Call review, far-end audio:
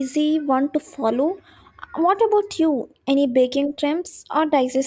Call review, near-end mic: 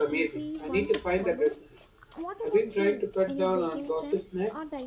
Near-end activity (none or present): present